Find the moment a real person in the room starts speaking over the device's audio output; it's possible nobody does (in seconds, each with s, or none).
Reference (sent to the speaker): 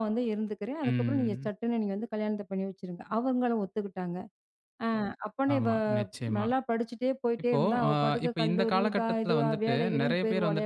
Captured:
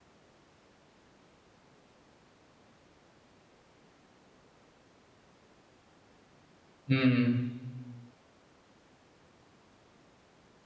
6.9 s